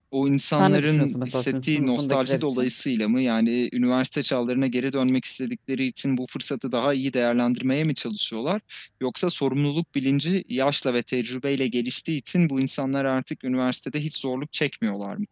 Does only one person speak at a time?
No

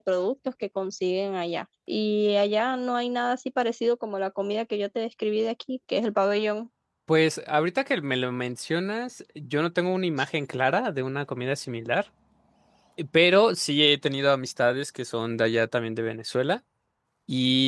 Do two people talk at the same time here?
No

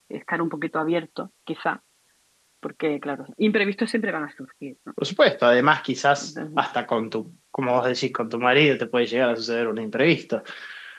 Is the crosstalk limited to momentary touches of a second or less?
Yes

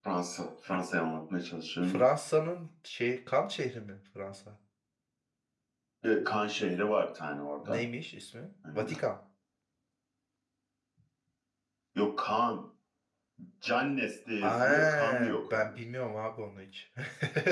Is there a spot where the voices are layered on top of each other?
Yes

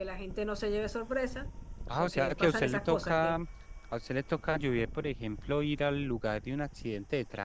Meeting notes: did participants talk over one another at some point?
Yes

